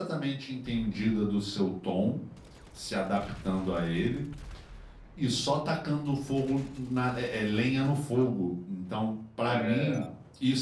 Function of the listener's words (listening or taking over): listening